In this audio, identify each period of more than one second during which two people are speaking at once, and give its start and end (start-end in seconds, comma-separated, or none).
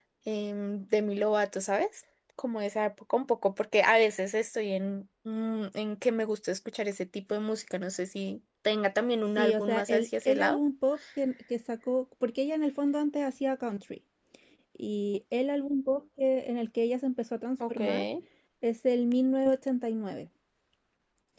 9.4-10.6